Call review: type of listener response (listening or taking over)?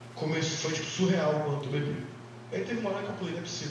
listening